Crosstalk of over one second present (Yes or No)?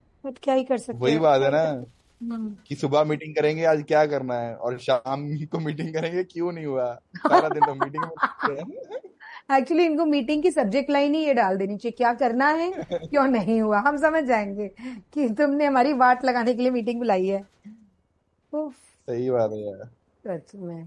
No